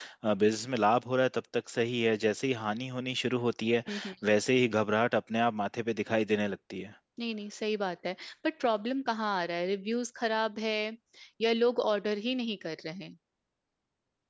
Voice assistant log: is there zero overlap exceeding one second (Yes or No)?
Yes